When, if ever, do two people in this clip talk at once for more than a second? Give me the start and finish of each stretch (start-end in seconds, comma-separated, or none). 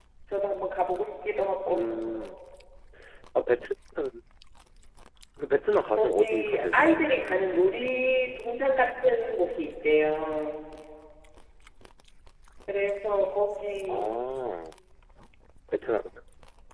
5.9-7.3